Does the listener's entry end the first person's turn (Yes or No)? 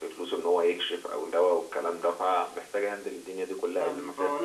Yes